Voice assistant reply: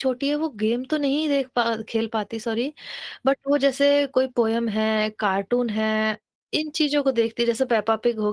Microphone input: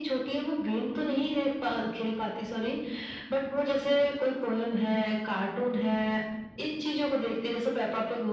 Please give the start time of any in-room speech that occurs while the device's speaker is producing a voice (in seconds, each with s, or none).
none